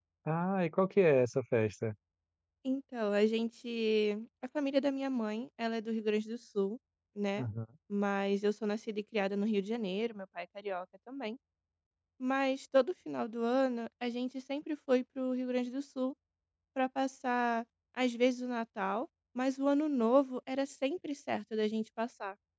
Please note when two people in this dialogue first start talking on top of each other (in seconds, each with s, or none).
none